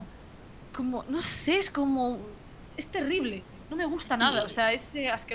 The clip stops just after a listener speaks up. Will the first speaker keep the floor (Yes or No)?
Yes